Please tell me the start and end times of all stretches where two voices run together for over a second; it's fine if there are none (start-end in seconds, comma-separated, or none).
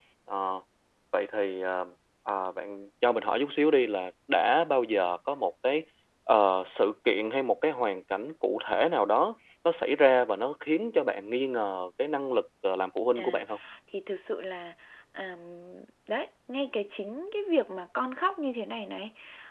none